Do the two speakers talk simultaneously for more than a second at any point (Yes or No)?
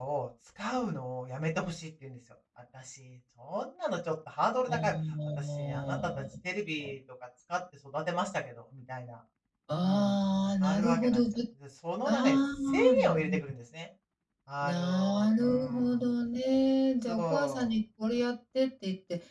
Yes